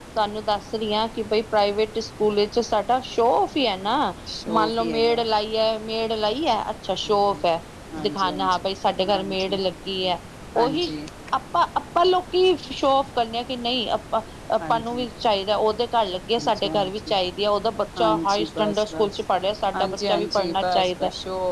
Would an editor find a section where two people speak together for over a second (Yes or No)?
Yes